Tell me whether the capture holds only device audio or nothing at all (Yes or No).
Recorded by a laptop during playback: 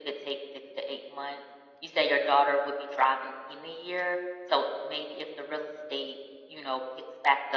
Yes